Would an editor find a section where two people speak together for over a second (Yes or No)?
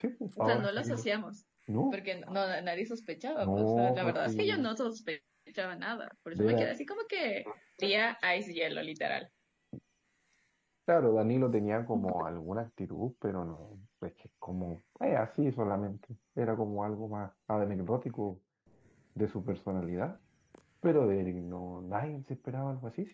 Yes